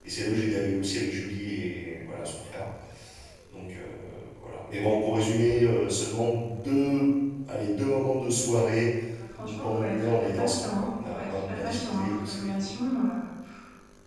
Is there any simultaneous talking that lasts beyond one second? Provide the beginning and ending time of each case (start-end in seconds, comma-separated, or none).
9.4-12.6